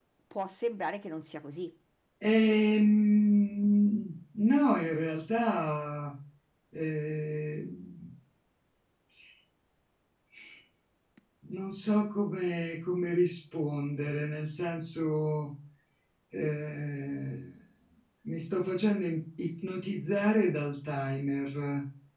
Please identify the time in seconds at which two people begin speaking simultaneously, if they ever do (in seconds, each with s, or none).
none